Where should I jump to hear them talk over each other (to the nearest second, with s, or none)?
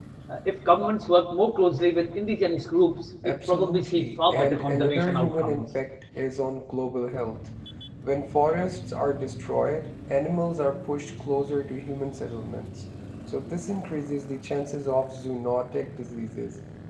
3 s